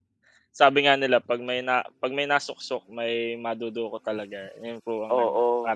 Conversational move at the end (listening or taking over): taking over